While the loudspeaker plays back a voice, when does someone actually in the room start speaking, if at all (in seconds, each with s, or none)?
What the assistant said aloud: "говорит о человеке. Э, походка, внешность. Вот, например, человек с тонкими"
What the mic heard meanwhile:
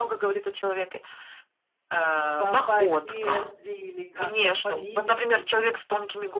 2.4 s